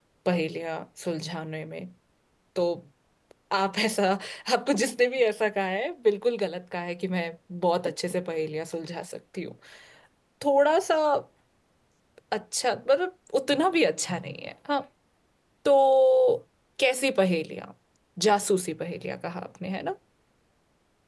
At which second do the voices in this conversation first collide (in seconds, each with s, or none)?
none